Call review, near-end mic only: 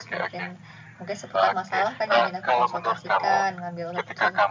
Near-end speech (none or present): present